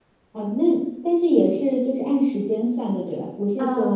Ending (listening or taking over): taking over